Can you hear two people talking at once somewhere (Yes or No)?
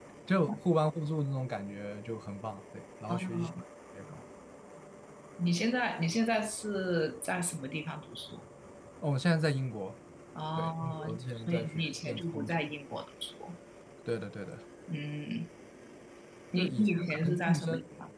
Yes